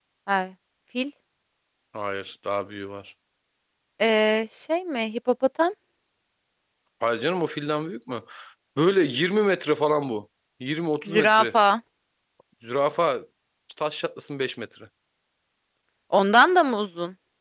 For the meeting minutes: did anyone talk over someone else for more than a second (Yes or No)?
No